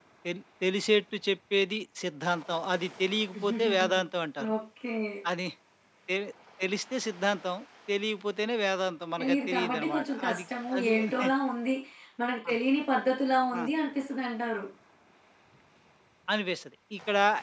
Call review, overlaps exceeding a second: present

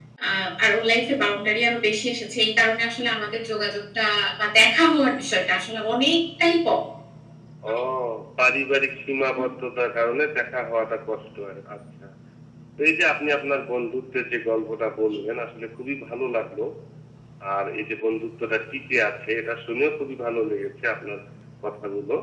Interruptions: none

